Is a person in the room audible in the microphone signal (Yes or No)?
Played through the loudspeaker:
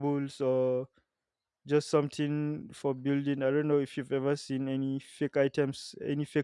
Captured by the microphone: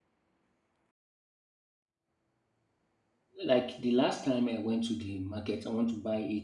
Yes